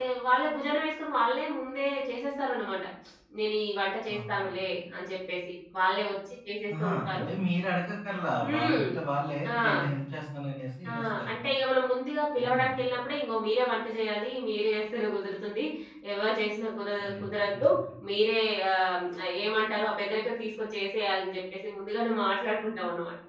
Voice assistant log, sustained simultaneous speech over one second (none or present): none